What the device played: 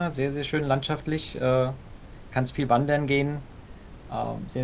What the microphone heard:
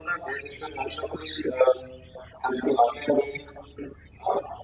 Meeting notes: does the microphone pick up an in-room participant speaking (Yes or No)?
No